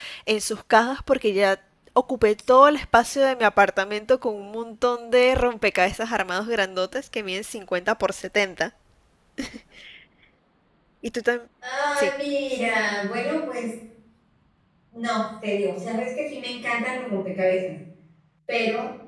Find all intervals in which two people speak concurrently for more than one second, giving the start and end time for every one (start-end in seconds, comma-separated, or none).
none